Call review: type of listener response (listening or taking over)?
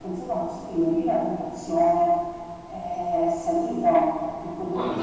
listening